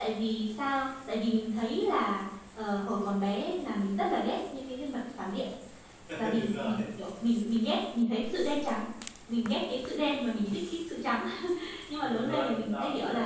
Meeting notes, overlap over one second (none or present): present